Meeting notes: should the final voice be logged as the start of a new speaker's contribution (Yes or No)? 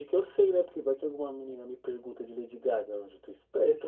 Yes